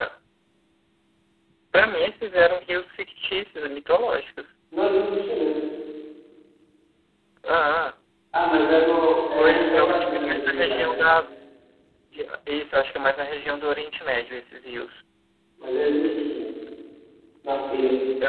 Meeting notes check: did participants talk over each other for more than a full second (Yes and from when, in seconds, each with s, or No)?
Yes, from 9.4 s